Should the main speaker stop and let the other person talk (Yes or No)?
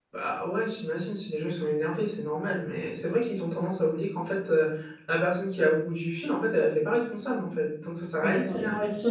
Yes